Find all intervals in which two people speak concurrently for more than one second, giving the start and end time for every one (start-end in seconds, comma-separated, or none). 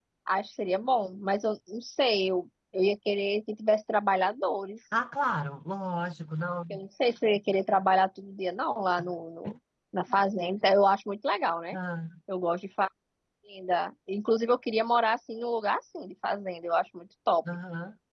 none